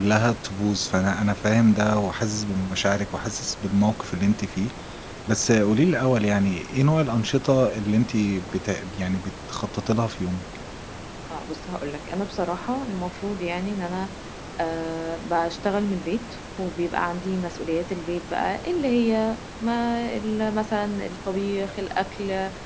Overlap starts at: none

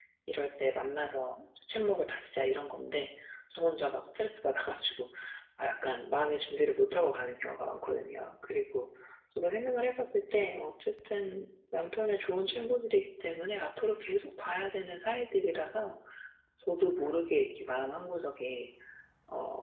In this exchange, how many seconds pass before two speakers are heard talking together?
none

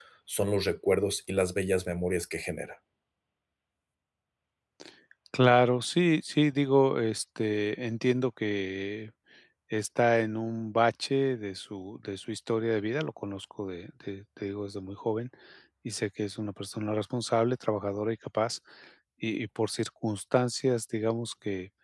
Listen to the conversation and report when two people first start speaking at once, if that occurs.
none

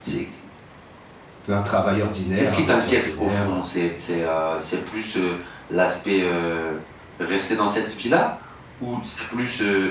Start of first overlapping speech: 2 s

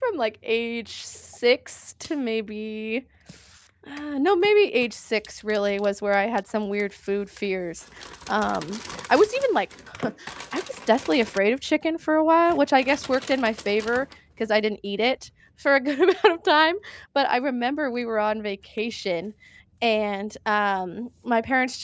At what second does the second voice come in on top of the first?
none

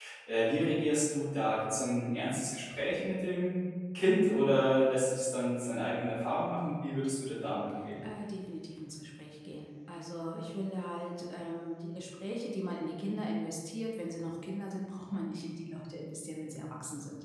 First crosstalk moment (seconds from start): none

